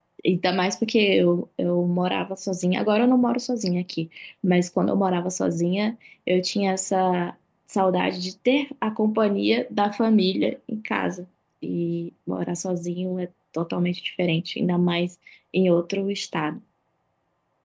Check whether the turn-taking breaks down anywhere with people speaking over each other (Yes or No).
No